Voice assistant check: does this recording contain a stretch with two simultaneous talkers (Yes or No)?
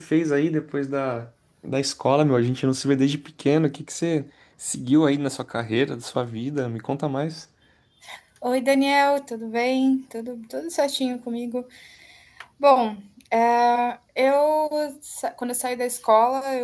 No